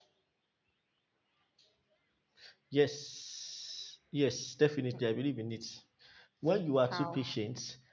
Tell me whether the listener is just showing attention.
Yes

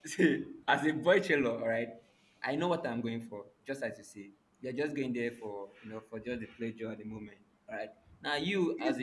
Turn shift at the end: Yes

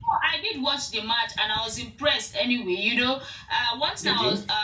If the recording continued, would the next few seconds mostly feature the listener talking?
No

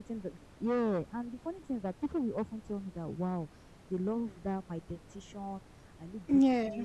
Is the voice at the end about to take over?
No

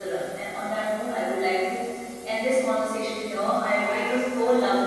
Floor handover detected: No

